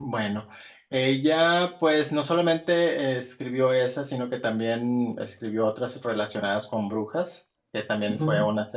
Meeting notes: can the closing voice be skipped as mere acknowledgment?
Yes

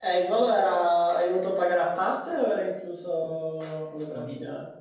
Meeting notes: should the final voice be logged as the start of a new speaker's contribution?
Yes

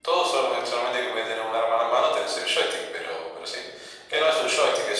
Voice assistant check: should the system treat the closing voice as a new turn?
No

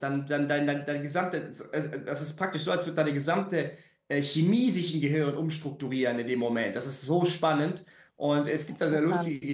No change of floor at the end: Yes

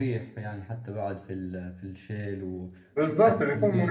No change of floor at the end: No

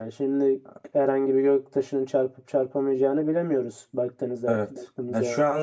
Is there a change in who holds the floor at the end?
Yes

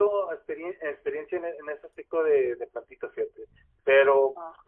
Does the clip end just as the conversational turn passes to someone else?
No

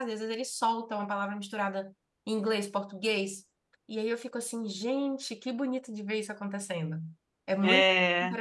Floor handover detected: No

